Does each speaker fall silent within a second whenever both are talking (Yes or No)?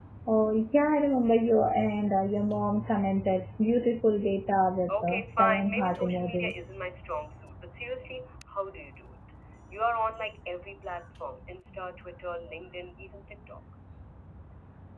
No